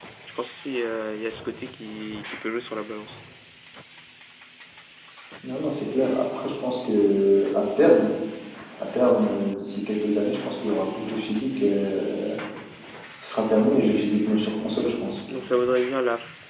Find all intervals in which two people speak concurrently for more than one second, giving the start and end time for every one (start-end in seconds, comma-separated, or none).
none